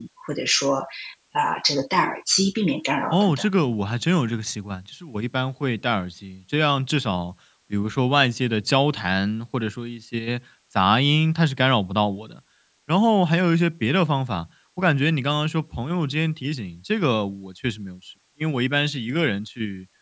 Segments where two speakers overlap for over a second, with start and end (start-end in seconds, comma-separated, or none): none